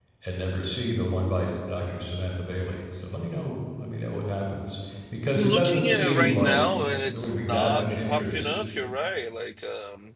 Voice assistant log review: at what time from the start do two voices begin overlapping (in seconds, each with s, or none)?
5.3 s